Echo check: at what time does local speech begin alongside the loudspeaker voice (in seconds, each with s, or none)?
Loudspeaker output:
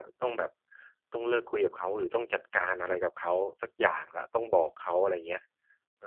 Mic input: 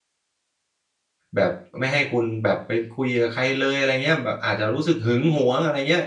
1.3 s